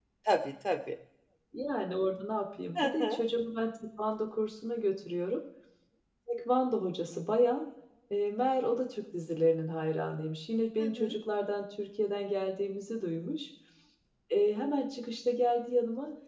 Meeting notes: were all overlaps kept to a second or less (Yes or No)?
Yes